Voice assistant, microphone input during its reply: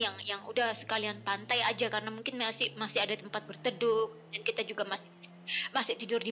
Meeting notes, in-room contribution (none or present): none